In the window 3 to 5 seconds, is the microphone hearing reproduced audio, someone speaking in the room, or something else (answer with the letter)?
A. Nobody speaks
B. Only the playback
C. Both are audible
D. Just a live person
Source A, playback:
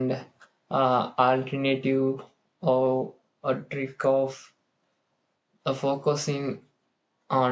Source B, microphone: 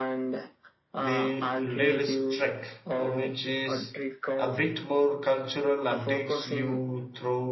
C